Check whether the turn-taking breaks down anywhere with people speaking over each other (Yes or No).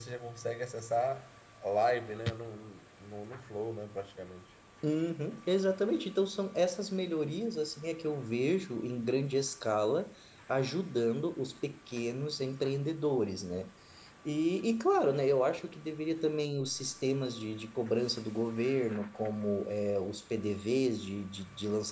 No